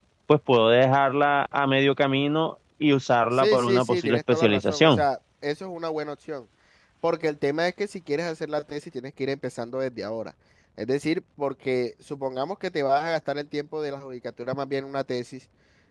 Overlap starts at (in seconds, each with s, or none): 3.3 s